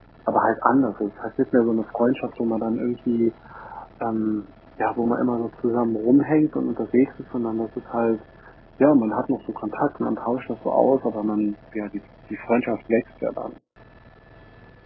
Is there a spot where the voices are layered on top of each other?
No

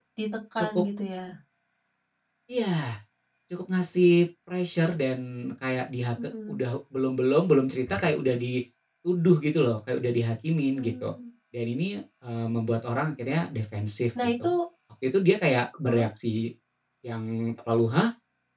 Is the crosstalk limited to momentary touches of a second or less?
Yes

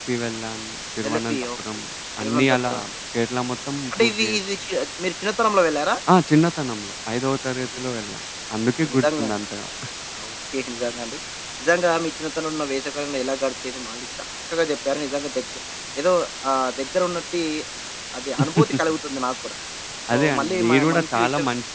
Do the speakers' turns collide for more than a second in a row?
Yes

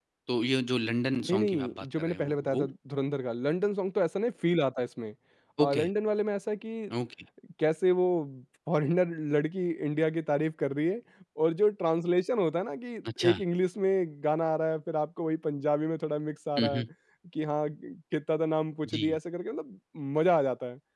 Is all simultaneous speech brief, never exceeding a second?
No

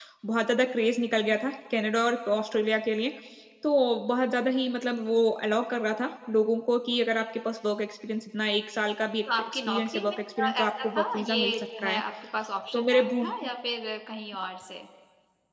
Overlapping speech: Yes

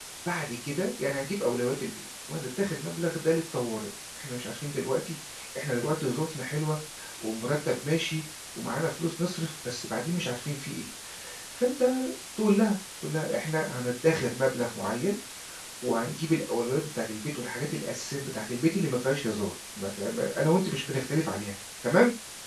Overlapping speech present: No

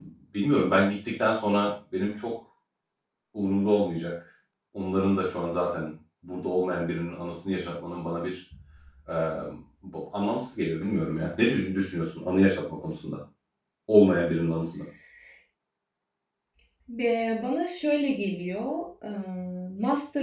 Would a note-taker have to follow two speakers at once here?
No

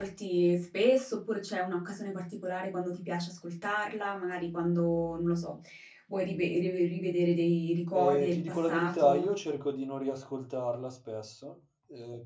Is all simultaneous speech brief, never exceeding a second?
No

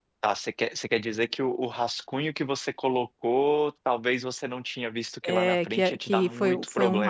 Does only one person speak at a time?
No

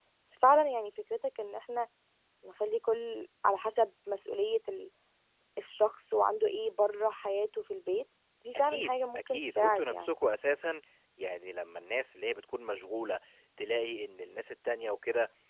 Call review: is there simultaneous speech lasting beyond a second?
Yes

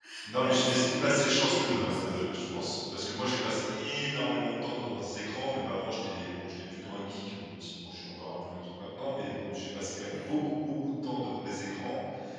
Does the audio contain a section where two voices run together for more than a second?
Yes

